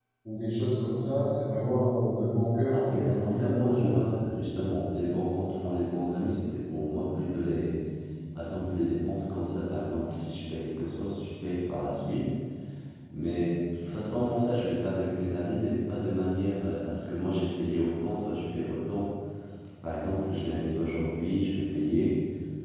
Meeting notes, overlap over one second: present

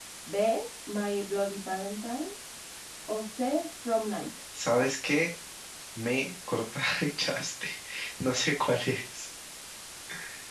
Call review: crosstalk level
none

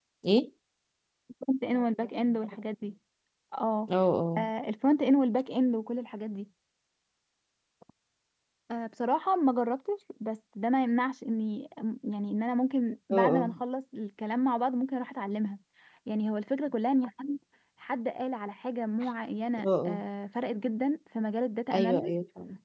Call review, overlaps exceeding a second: none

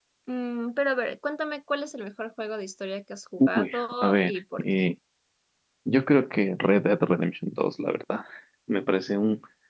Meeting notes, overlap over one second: present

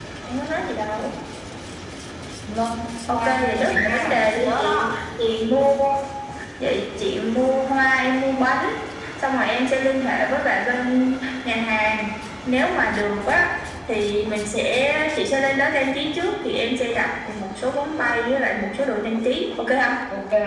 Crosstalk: present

